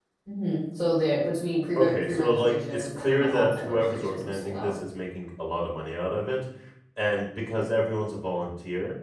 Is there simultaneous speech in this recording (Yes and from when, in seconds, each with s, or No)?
Yes, from 1.8 s